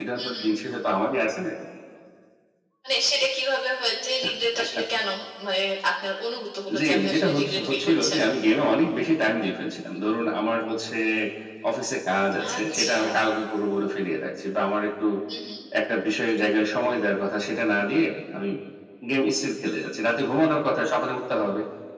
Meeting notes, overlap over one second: present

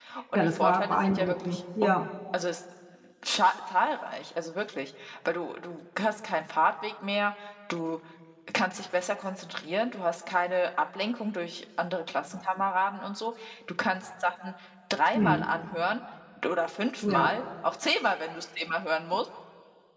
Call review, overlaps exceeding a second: present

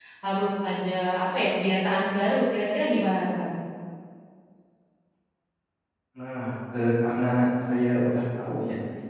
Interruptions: none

